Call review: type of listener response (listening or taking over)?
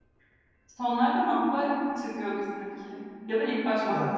taking over